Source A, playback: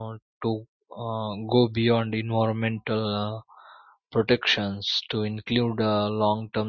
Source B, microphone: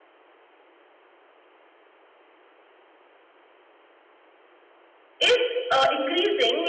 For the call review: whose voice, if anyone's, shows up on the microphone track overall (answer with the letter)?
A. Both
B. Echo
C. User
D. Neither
C